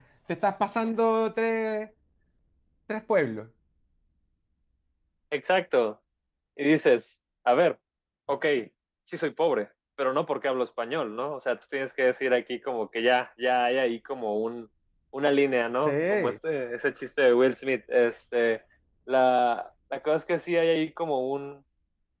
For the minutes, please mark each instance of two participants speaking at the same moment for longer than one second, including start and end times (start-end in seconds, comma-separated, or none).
none